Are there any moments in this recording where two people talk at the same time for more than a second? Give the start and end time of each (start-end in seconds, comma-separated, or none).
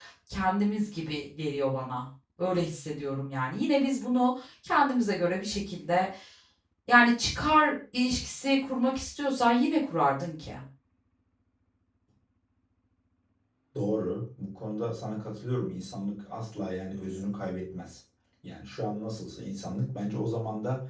none